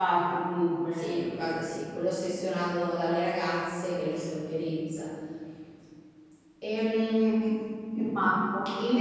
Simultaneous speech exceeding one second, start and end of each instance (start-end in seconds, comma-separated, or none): none